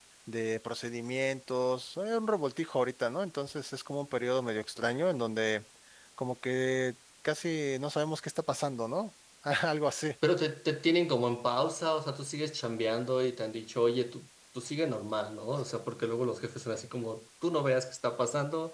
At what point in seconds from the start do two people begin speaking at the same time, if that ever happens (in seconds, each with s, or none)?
none